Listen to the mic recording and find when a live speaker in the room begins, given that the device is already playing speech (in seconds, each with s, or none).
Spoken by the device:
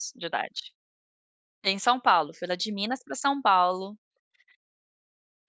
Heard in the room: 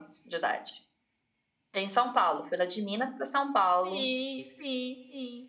3.8 s